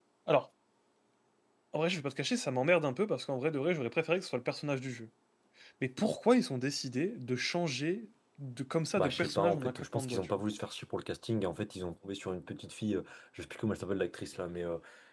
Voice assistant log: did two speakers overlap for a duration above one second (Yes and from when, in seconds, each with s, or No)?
Yes, from 9.0 s